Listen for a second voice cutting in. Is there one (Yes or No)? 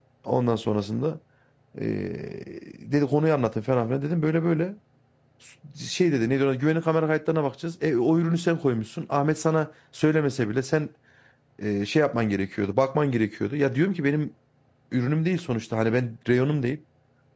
No